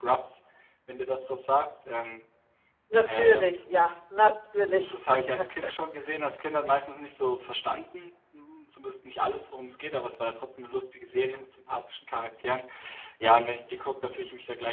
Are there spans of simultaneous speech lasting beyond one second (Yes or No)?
No